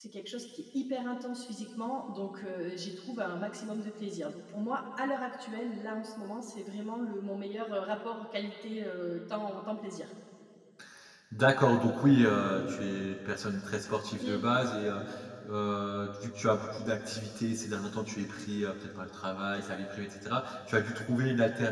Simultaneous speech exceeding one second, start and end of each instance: none

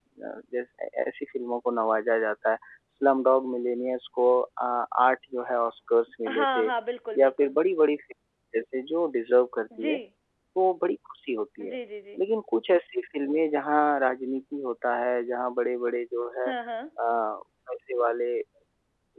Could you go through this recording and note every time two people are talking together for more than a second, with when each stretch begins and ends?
none

